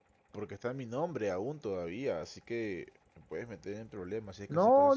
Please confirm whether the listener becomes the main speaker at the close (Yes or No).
Yes